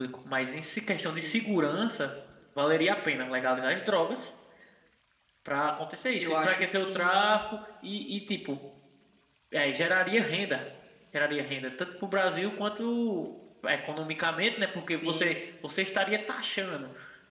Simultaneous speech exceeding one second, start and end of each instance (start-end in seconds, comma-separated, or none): 6.2-7.4